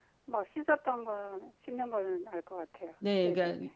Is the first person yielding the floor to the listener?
Yes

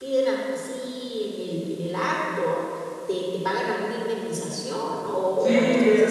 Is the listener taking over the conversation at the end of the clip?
Yes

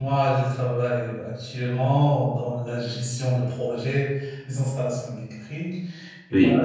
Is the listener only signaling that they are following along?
Yes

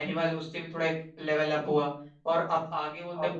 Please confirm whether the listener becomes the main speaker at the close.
No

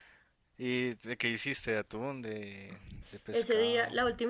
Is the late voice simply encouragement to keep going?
No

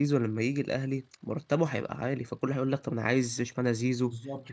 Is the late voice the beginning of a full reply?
Yes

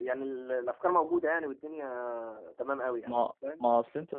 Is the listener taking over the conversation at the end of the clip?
Yes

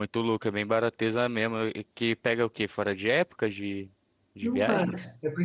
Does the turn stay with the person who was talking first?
No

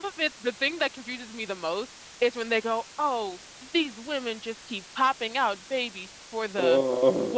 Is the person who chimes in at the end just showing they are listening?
Yes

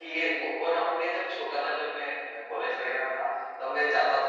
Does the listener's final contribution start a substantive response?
No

